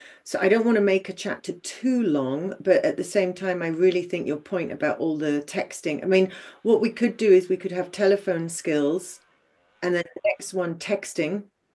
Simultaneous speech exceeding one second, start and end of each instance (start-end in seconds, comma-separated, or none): none